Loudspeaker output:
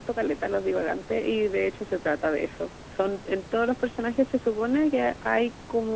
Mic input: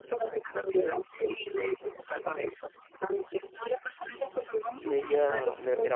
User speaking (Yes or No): Yes